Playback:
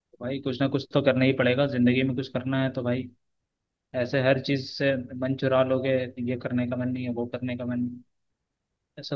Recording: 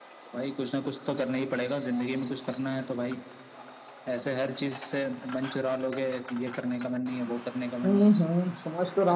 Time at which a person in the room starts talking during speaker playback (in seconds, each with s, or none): 7.8 s